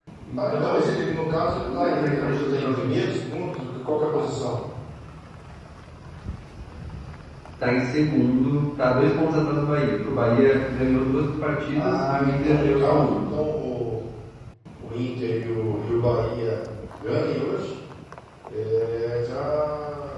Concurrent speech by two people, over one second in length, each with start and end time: 1.6-3.0, 11.7-13.2

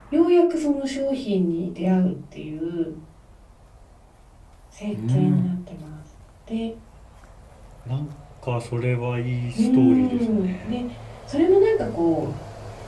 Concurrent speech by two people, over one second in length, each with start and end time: 9.6-10.8

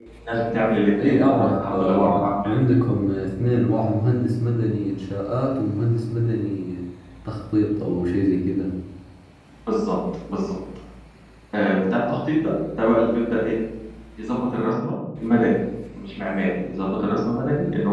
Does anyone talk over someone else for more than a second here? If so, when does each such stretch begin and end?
1.0-2.5

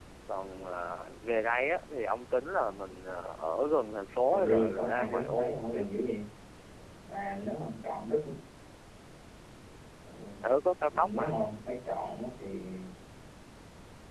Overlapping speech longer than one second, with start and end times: 4.4-5.9

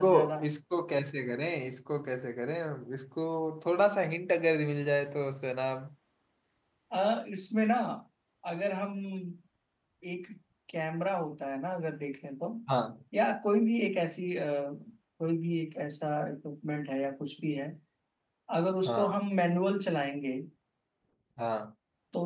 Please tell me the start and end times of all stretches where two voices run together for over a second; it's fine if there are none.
none

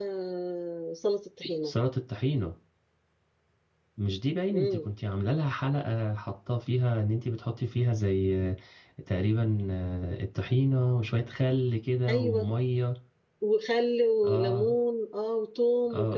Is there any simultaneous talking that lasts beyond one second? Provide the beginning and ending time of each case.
none

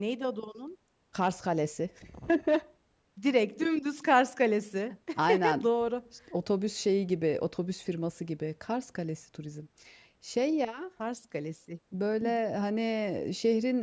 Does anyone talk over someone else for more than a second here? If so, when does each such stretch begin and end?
none

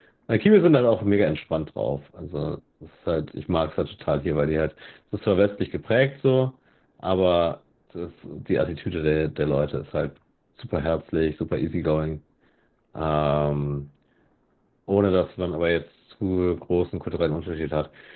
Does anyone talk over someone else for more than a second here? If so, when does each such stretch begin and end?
none

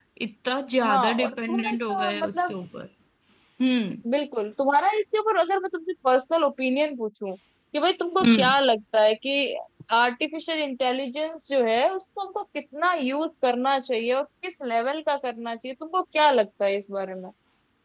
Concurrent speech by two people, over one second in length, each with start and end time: 0.8-2.5

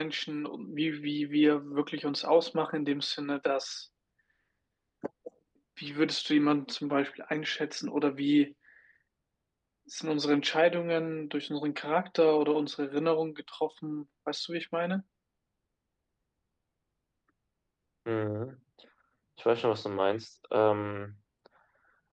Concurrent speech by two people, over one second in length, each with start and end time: none

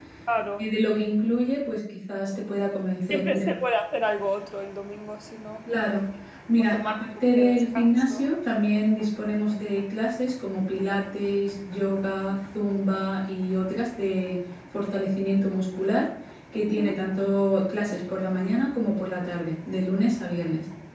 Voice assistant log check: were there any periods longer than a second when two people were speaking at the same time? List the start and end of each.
6.6-8.2

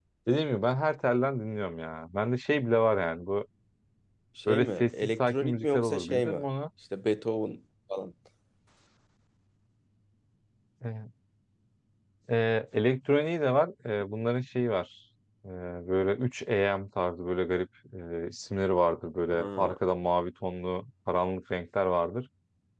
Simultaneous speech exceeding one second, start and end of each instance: 4.5-6.4

